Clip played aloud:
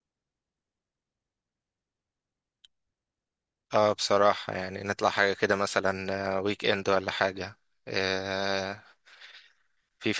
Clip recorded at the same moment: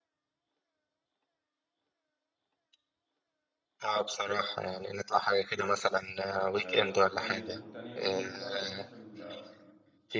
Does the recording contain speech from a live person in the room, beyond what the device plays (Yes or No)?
Yes